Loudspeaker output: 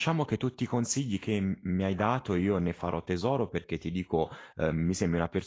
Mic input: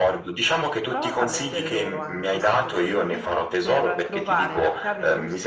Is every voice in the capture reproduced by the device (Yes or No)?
No